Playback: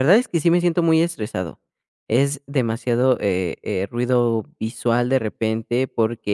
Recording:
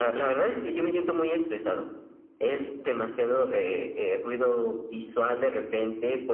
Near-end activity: none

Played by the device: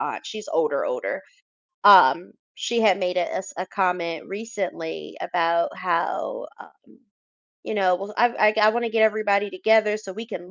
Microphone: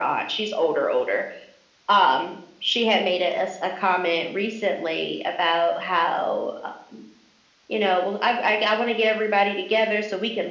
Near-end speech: none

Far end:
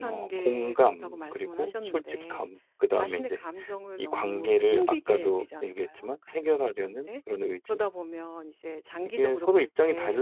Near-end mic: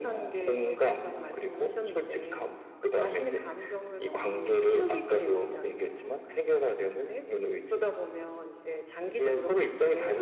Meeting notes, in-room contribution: none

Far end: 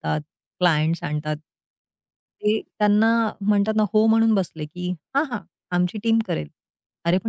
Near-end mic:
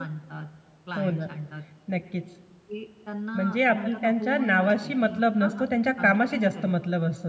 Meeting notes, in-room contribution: present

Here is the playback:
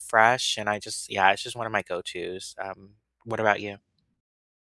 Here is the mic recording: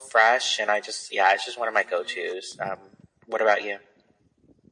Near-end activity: none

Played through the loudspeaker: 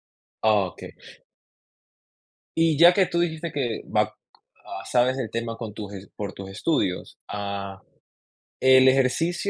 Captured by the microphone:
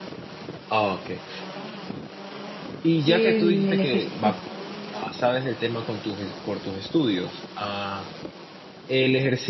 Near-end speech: present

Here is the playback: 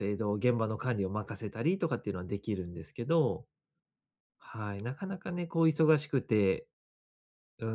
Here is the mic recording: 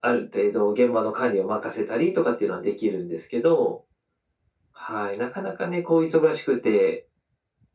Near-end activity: none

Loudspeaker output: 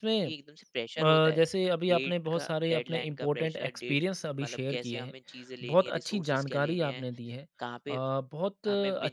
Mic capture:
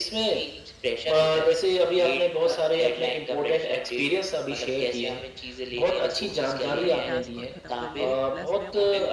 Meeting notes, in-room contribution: present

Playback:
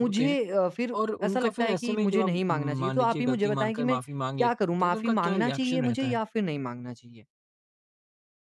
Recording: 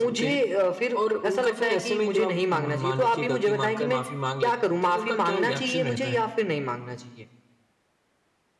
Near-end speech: none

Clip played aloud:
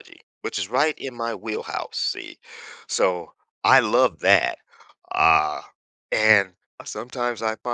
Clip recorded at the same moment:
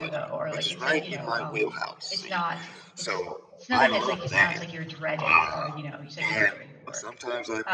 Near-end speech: present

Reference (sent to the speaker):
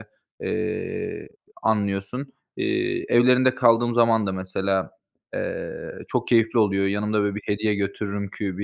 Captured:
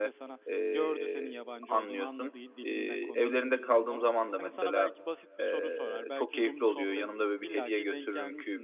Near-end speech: present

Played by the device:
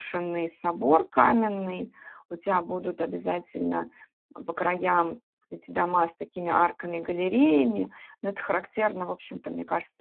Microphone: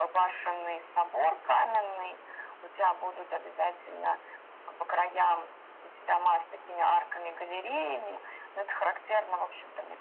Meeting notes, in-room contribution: none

